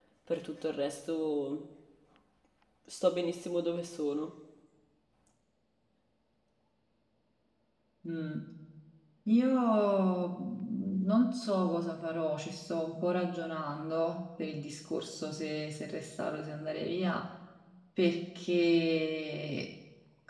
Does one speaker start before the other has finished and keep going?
No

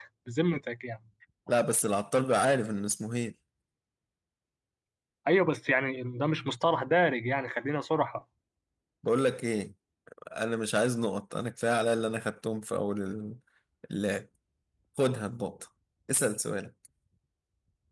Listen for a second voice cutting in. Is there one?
No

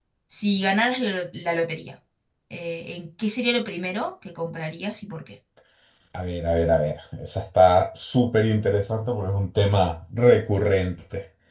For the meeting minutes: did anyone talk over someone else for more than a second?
No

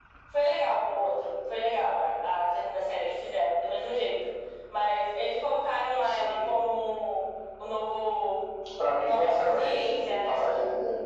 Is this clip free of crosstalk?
No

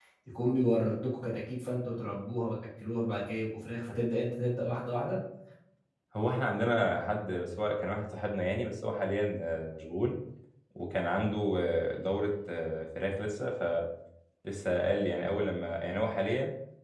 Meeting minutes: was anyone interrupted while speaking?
No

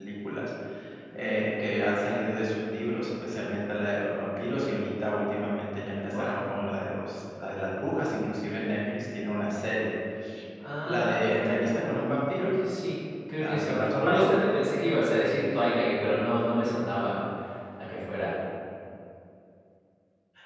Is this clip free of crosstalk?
No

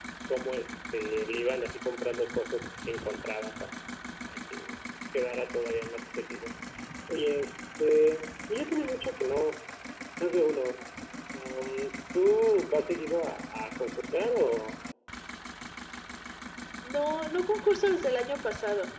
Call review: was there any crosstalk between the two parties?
No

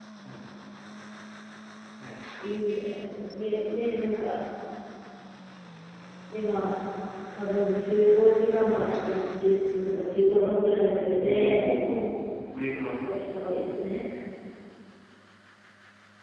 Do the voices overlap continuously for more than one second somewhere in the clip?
No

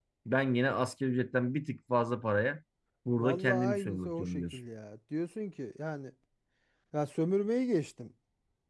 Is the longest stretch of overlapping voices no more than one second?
No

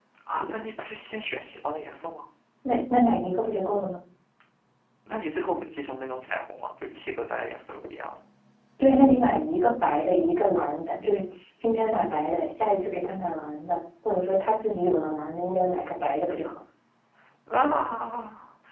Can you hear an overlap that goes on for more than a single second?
No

